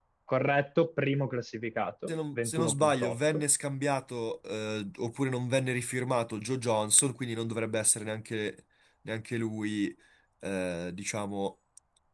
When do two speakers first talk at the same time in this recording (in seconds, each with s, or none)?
2.1 s